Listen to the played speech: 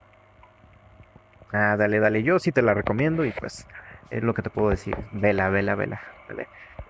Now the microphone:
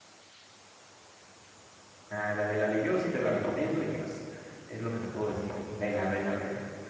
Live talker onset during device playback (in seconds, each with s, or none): none